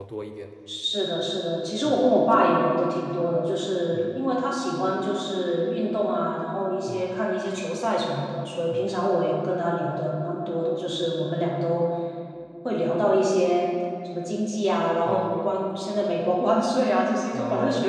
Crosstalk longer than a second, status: none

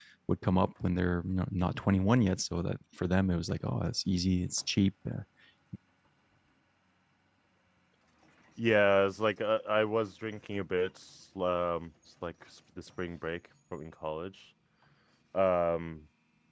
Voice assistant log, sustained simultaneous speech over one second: none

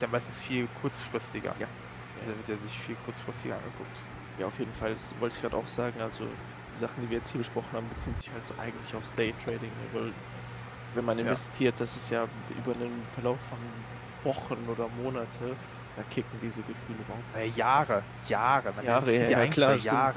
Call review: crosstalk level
present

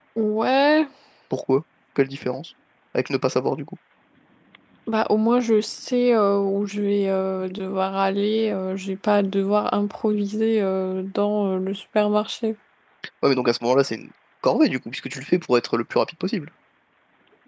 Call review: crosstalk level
none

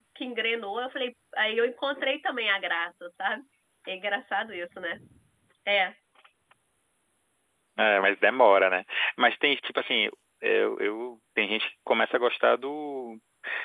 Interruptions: none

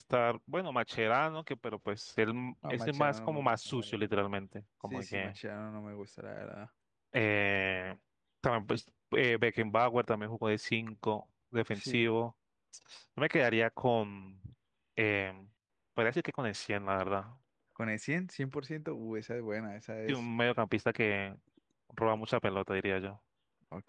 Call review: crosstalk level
present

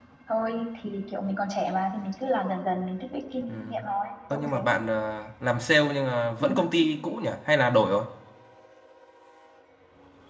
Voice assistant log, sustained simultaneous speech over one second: none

